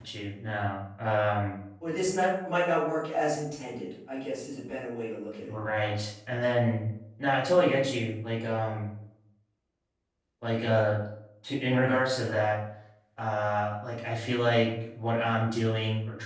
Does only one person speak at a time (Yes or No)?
Yes